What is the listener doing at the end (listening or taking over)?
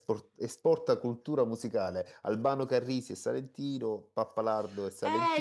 taking over